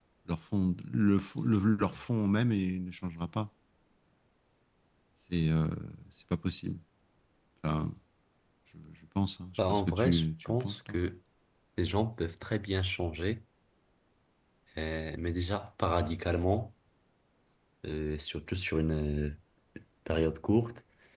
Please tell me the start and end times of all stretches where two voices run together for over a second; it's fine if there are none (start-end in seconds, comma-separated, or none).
9.6-11.0